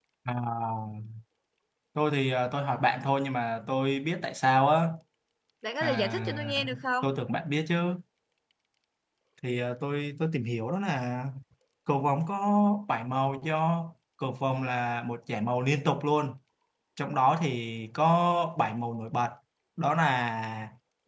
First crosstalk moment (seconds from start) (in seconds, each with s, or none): 5.8 s